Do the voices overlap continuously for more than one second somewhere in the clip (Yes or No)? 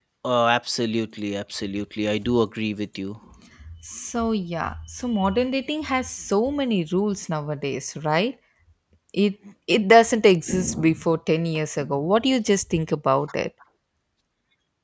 No